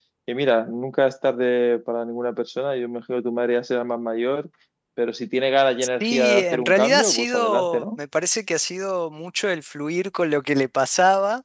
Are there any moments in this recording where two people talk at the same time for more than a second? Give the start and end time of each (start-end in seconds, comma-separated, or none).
6.0-7.8